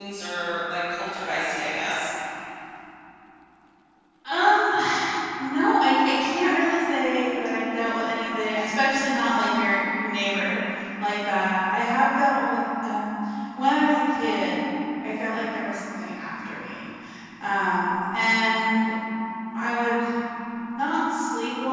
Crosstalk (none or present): none